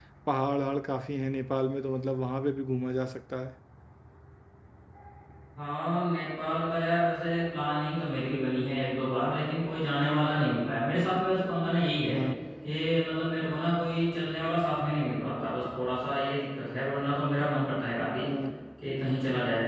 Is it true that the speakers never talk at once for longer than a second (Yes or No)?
Yes